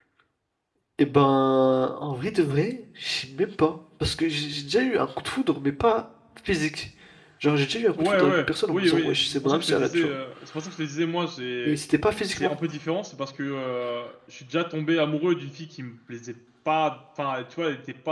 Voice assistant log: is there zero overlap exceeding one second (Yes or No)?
No